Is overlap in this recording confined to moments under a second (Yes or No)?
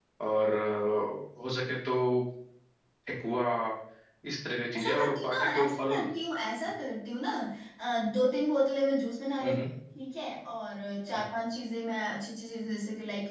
No